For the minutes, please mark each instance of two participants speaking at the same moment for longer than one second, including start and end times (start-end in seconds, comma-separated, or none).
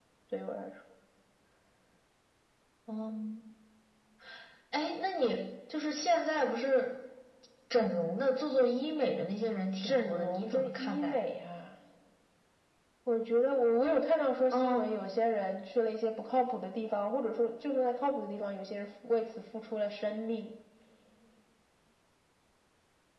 9.8-11.2